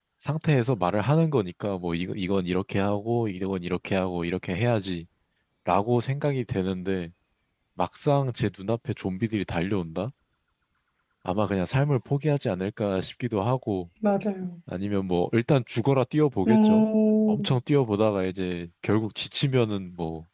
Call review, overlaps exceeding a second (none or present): none